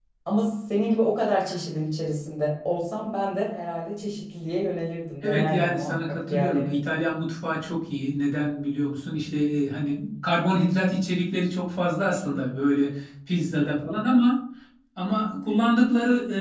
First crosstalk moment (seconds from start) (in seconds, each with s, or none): 5.2 s